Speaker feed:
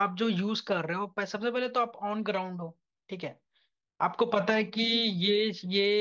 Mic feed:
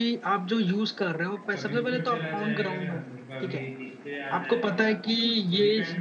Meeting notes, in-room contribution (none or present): present